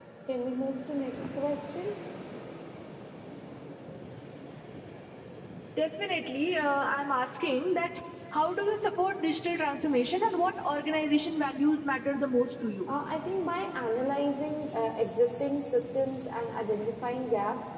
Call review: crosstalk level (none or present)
none